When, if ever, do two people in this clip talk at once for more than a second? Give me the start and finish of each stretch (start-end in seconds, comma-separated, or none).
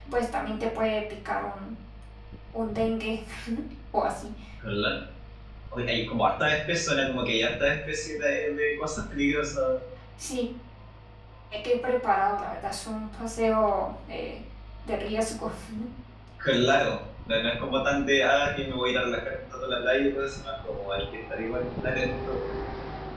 none